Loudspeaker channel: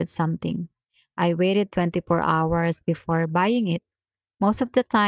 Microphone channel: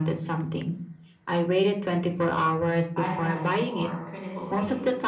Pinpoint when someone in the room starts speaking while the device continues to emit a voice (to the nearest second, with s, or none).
3 s